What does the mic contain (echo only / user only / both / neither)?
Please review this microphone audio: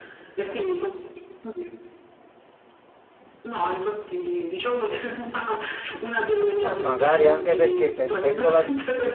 both